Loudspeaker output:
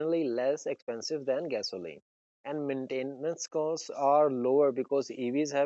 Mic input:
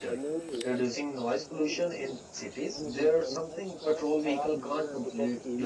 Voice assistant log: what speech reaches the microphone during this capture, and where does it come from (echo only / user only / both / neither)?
both